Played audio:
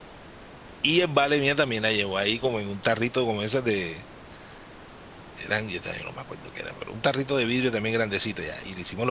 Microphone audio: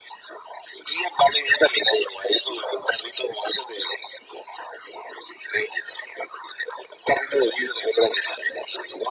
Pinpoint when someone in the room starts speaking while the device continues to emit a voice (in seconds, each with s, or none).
none